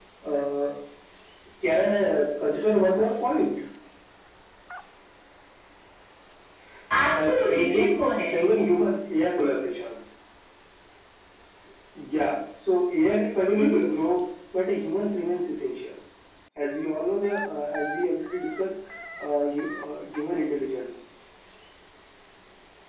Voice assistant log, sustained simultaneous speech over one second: present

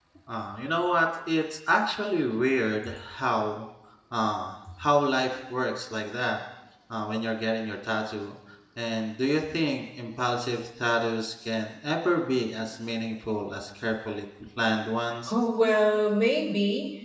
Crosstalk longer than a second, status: none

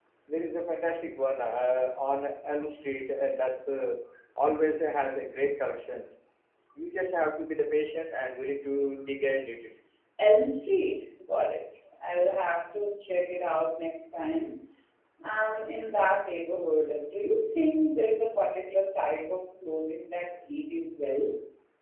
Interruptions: none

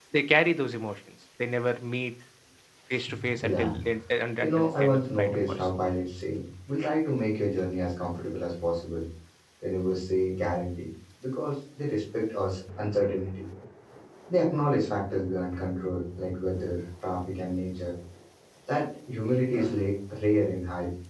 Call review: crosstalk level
present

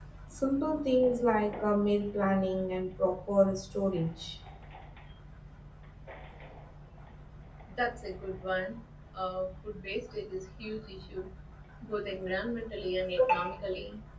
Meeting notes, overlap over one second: none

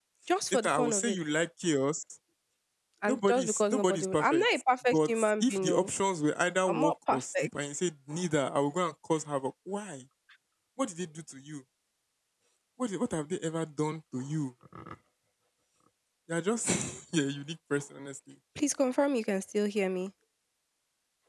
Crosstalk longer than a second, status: present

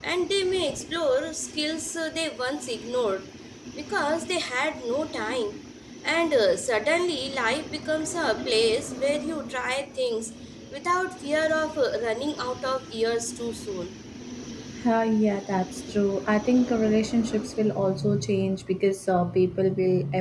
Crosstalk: none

